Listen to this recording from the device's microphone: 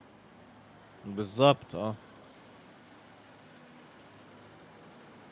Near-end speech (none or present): present